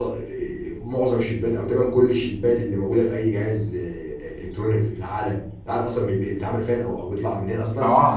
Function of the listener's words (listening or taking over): taking over